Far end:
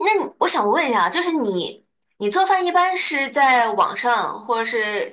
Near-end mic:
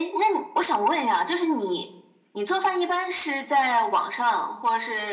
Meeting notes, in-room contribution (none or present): none